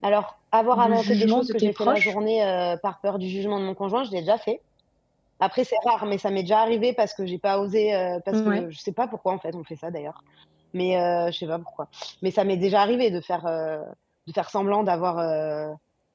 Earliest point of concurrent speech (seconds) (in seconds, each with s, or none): 0.7 s